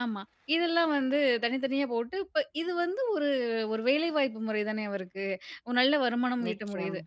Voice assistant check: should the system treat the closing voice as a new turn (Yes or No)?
No